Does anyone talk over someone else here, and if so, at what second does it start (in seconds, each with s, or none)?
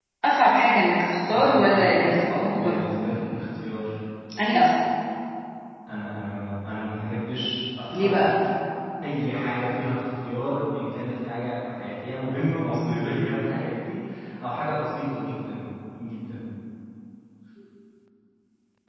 1.3 s